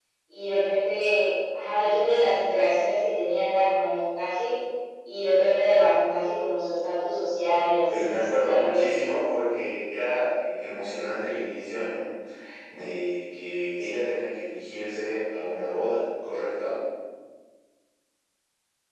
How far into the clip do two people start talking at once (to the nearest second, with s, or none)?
8 s